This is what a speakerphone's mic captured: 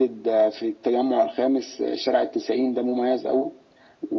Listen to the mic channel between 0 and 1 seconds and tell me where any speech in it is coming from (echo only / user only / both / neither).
echo only